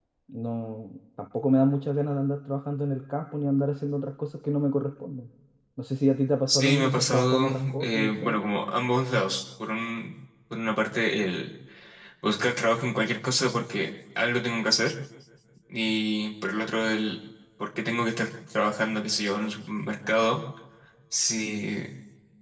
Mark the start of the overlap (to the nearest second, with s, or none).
6 s